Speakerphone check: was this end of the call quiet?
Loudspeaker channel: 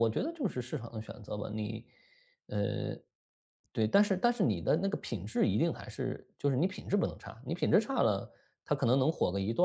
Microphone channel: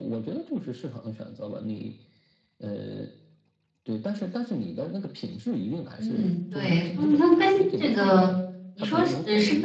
No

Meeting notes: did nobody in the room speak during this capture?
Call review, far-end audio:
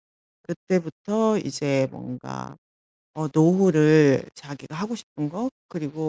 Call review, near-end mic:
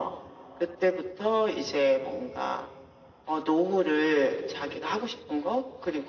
Yes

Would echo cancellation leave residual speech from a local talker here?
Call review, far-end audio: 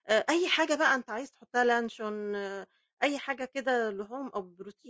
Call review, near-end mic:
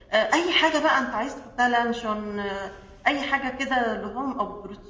No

